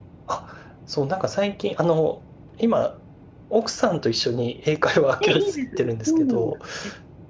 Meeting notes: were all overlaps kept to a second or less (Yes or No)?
No